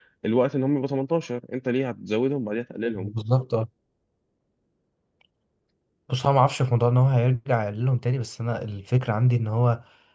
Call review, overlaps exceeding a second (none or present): none